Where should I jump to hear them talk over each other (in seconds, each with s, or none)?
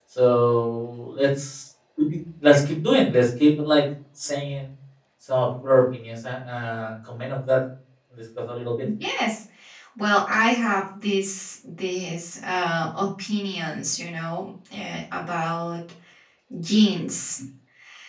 none